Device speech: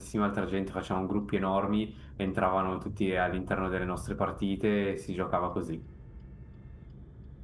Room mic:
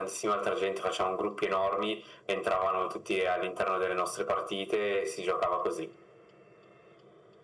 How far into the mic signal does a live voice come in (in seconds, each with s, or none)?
none